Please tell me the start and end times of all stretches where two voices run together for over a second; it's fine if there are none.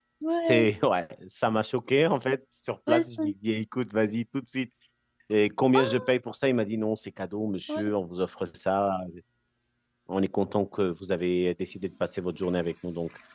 none

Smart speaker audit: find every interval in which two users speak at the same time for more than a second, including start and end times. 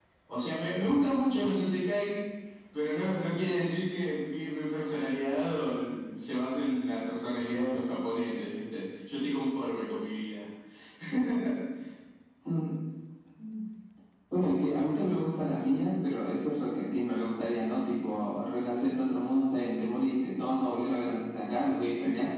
none

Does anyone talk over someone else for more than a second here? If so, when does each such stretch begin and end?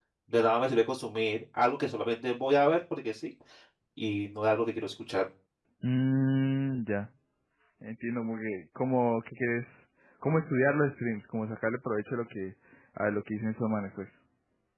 none

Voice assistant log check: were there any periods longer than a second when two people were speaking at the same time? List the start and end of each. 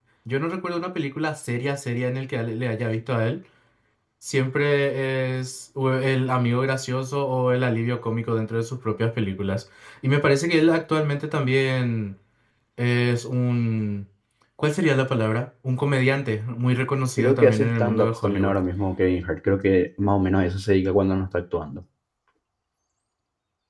17.2-18.5

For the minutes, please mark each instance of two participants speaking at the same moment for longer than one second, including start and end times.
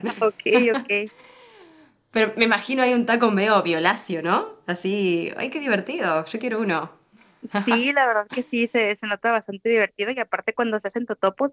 none

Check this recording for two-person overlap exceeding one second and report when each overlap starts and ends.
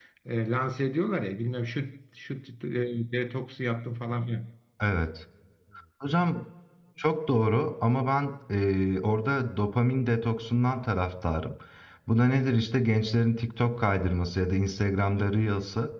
none

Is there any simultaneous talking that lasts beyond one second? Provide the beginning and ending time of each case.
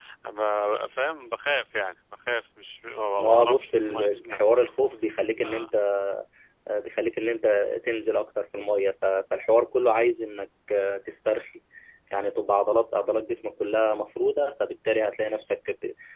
3.2-4.6

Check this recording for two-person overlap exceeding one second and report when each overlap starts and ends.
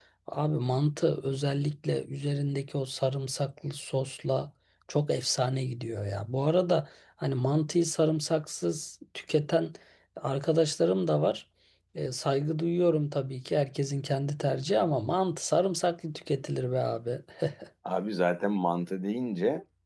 none

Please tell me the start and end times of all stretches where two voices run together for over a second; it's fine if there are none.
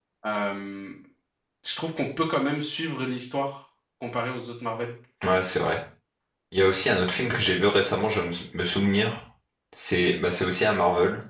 none

